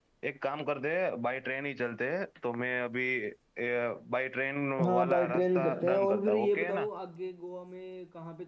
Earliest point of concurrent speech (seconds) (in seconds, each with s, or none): 4.9 s